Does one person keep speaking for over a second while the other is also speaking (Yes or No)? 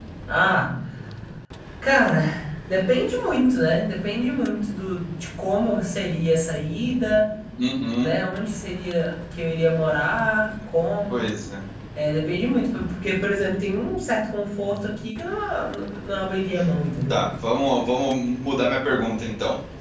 No